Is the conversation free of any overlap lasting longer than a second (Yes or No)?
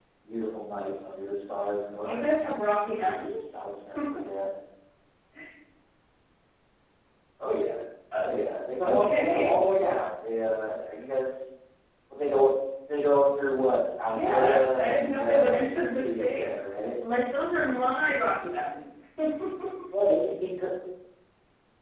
No